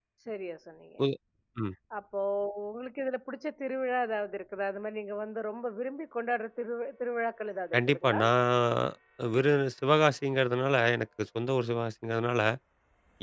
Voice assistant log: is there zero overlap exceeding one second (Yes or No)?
Yes